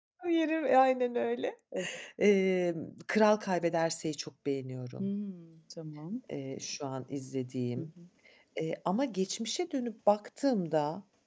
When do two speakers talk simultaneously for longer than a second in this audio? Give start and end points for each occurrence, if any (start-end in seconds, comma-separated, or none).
none